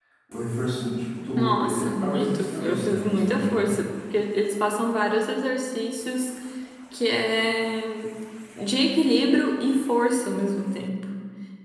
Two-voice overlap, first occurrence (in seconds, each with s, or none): 1.4 s